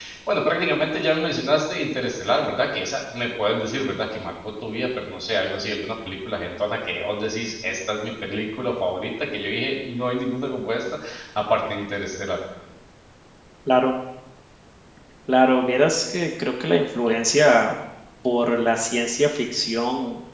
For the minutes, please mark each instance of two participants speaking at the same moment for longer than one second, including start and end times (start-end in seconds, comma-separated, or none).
none